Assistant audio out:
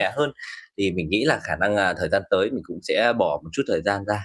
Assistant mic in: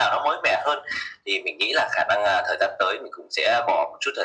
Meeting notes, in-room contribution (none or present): none